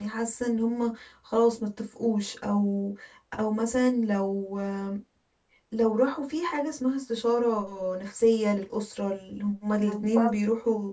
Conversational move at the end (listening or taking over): listening